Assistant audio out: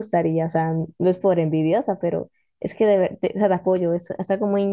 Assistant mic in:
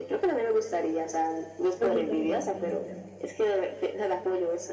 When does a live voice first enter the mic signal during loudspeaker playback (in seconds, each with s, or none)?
1.7 s